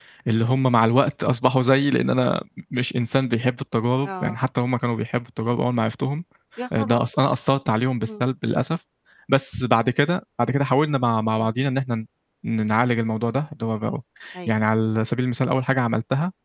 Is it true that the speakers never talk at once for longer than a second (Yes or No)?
Yes